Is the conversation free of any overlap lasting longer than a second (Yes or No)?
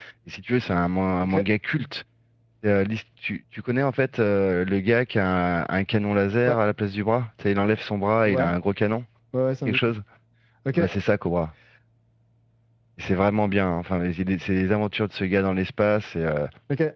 Yes